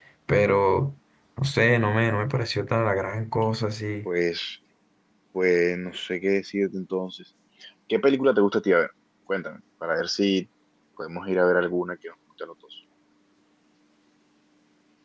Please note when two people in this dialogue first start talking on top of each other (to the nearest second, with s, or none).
none